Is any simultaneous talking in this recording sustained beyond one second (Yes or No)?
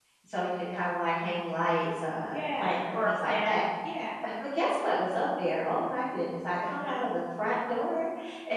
Yes